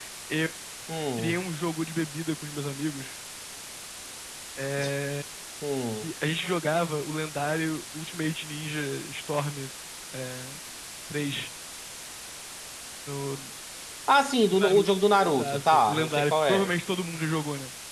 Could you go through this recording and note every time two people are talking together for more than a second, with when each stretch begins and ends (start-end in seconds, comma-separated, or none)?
14.5-16.7